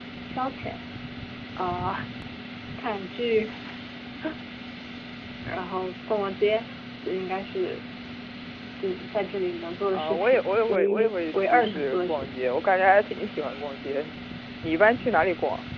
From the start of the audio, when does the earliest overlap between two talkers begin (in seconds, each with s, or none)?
9.9 s